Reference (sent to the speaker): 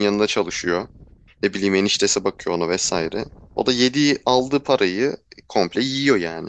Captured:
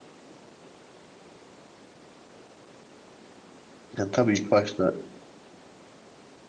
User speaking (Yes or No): Yes